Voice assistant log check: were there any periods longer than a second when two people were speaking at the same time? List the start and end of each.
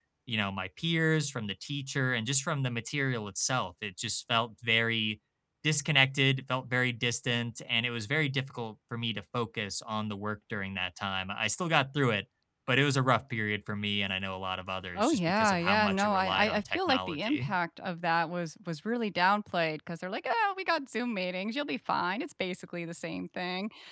15.0-17.5

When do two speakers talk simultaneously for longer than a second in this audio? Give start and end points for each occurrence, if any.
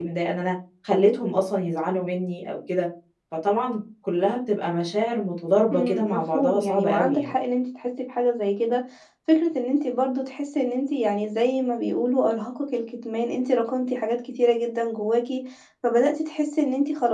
5.7-7.3

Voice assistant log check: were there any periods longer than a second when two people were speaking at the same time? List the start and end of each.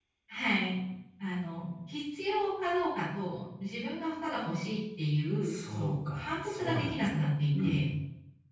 5.4-7.1

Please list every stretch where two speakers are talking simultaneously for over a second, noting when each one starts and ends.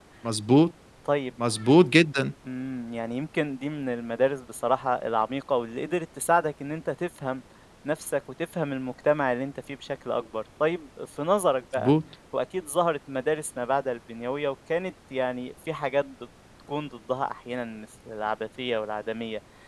none

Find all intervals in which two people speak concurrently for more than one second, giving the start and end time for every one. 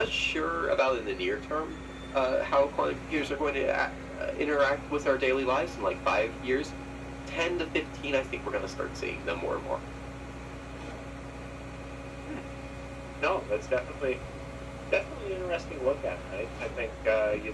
none

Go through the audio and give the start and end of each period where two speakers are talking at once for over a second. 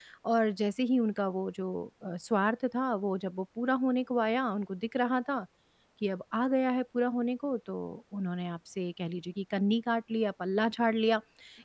none

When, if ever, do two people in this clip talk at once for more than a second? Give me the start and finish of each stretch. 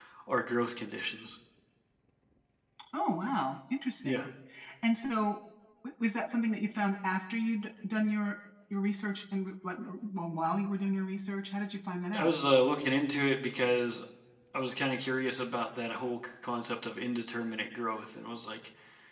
none

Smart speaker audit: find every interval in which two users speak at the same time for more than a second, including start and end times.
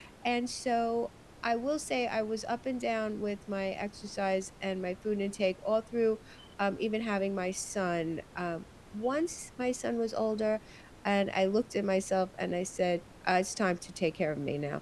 none

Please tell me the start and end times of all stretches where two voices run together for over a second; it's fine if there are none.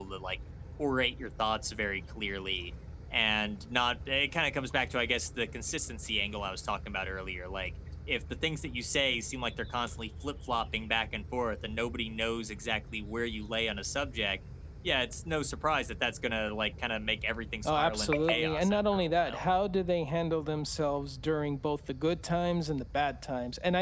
17.6-19.5

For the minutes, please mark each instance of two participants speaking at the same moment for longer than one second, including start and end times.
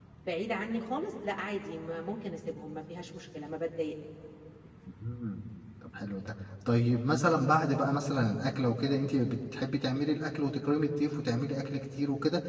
none

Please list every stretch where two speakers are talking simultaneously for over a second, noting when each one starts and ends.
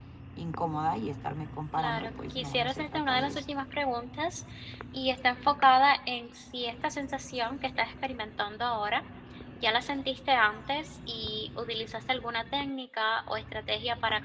1.8-3.5

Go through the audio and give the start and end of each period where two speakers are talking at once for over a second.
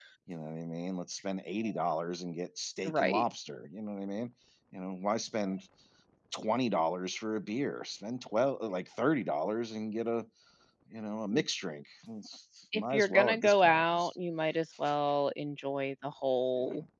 12.7-14.2

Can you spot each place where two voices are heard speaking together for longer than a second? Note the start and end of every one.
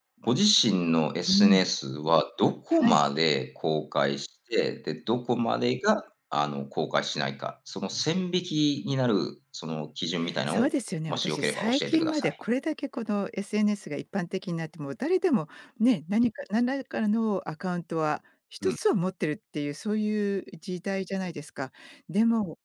11.1-12.3

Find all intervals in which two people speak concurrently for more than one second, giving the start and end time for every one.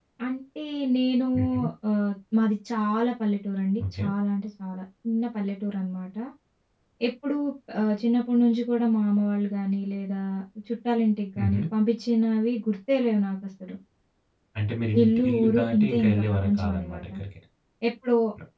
15.0-17.0

